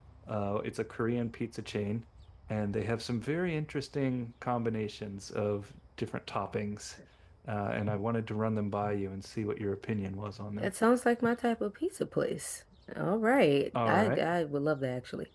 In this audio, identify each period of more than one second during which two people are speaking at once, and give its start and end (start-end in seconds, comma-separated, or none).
none